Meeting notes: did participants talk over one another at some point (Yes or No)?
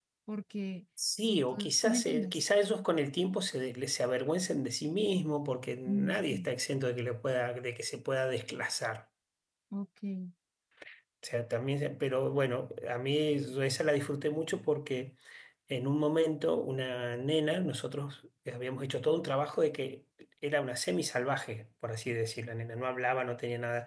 Yes